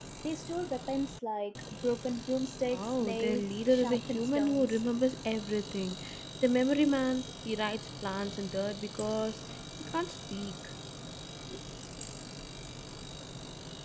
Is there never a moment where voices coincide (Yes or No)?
No